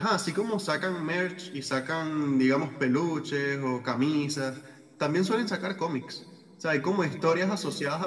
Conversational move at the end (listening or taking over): listening